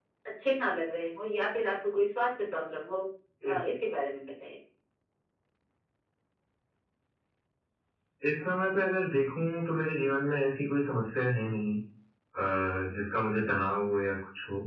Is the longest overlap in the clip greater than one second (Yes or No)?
No